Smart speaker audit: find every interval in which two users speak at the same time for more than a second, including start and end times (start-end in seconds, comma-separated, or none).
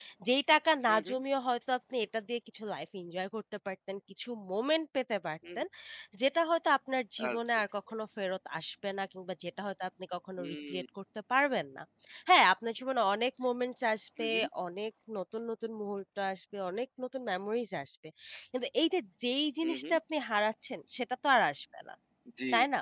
none